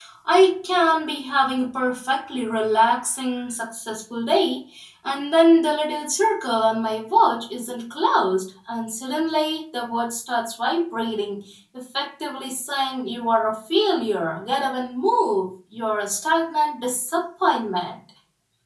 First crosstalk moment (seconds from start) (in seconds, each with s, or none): none